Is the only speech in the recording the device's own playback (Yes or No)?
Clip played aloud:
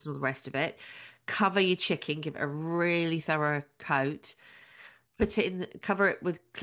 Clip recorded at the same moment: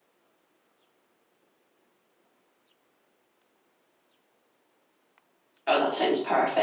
No